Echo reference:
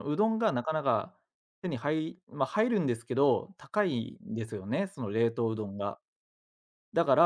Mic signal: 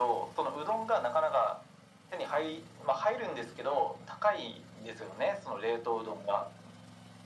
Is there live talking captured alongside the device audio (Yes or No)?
No